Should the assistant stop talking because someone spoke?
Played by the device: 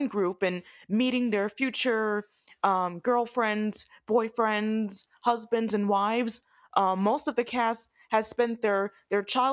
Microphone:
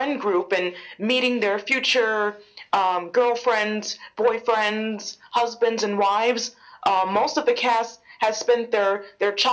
No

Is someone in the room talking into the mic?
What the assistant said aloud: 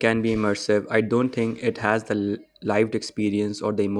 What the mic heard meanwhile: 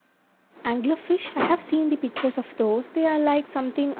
Yes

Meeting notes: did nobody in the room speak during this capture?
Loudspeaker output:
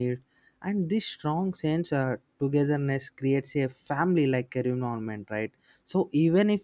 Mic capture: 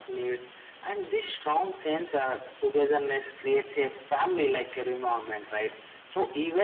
Yes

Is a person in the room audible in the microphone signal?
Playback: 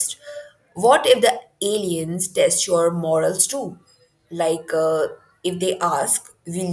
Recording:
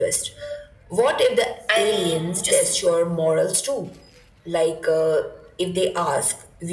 Yes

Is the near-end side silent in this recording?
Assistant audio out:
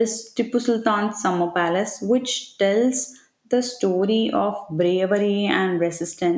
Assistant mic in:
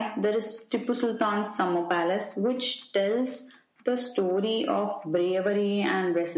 Yes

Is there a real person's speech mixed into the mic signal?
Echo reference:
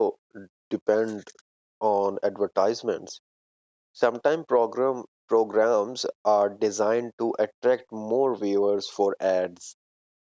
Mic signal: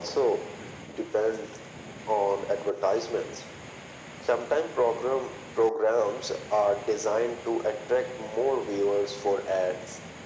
No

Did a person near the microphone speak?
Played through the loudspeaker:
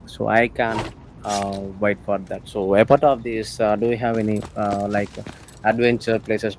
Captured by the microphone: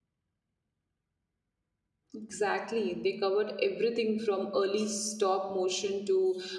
Yes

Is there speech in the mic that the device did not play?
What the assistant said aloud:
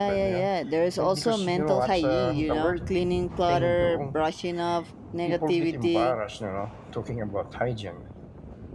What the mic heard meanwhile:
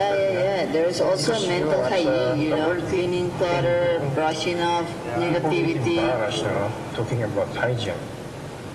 Yes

